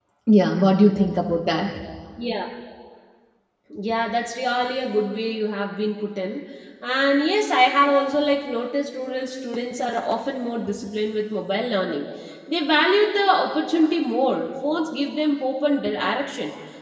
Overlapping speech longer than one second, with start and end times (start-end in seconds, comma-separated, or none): none